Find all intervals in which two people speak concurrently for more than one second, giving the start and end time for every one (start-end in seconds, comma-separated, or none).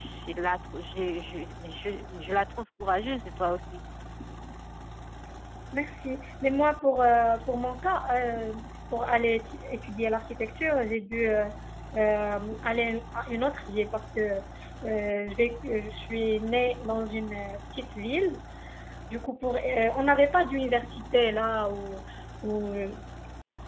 none